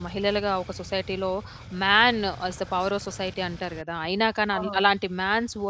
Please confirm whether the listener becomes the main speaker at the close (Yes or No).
No